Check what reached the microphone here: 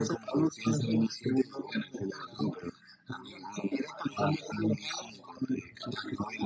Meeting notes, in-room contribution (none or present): none